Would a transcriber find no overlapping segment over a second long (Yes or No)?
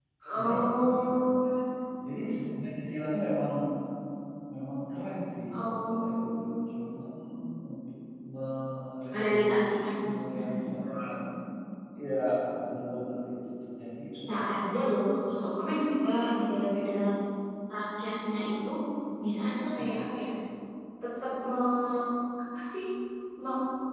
No